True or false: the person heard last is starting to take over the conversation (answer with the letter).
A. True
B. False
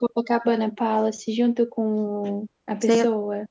A